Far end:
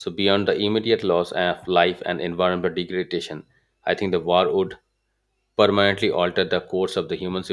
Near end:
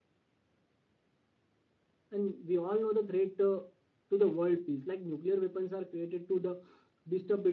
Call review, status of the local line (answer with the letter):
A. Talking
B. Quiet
A